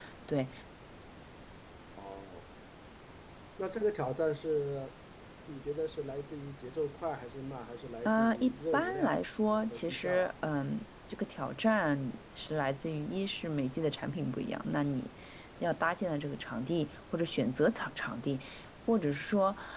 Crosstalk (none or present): present